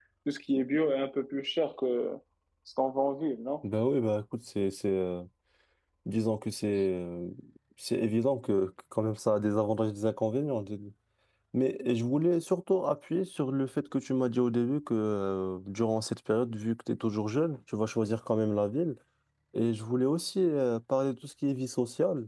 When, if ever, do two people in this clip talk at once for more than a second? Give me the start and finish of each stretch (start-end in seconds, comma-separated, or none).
none